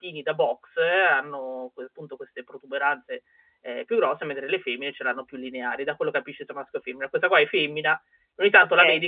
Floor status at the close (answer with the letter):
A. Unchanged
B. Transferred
A